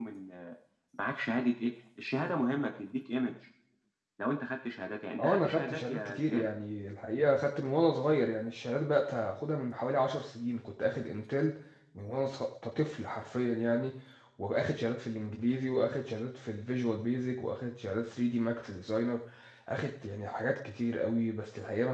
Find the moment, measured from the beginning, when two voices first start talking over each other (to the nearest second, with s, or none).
5 s